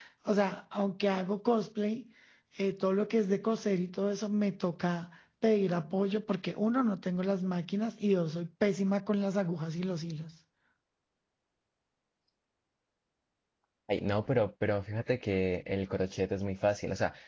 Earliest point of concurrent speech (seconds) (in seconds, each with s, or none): none